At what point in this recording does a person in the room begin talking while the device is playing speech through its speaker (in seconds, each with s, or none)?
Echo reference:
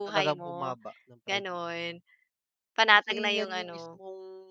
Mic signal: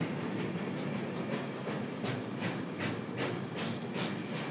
none